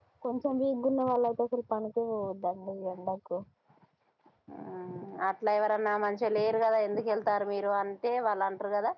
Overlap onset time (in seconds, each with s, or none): none